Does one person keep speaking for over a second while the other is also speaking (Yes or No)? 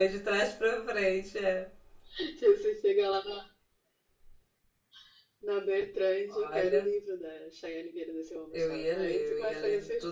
Yes